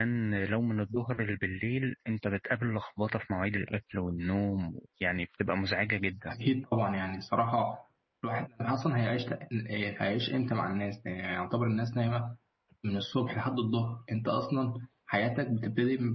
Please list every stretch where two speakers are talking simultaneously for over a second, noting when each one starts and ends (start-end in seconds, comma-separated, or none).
none